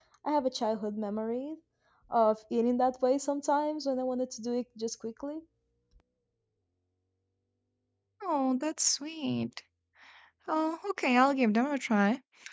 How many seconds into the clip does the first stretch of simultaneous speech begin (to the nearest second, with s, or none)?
none